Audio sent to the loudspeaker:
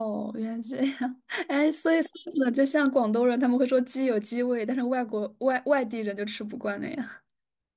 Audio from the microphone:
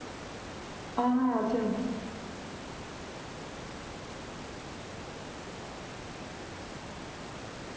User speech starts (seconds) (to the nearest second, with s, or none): 1 s